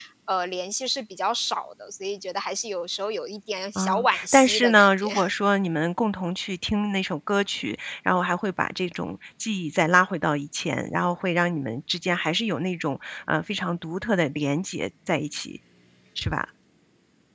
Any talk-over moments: Yes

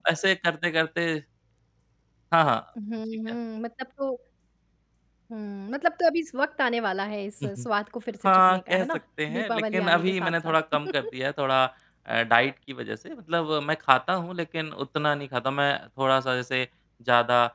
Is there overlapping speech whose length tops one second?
Yes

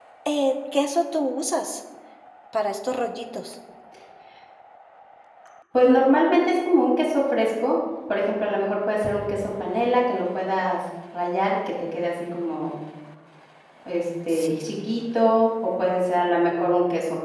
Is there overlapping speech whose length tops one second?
No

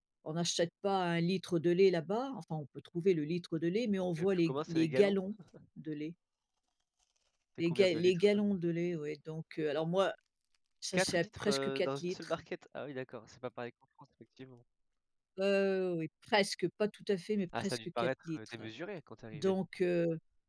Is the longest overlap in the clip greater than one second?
Yes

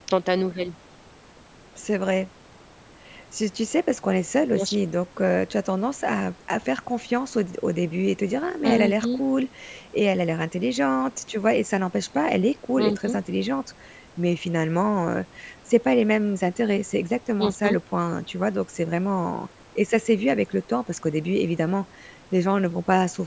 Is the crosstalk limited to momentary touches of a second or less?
Yes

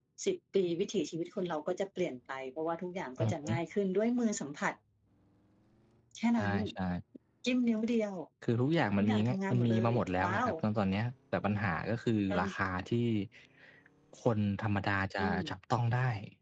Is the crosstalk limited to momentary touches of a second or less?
No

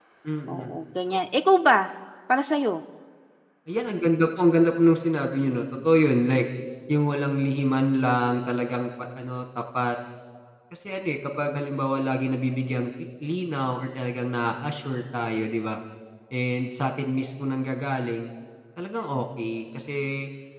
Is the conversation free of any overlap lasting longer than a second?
Yes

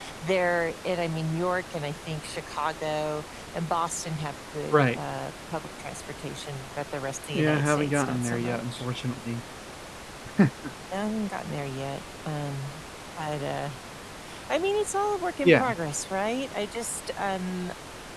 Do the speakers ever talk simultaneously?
Yes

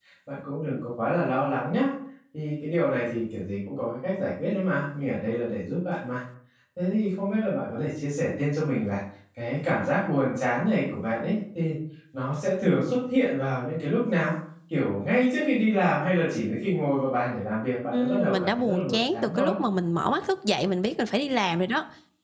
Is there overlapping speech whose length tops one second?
Yes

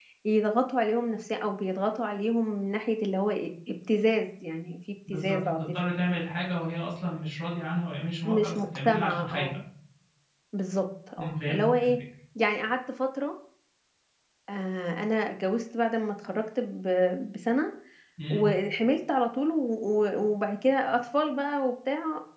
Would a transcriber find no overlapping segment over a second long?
No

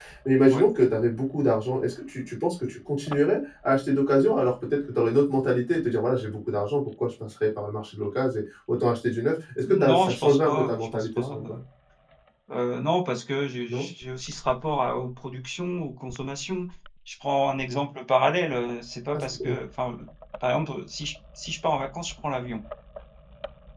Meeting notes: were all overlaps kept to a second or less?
No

